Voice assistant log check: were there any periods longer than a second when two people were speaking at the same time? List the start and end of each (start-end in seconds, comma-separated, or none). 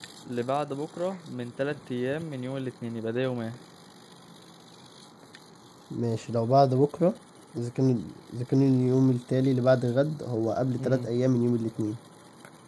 none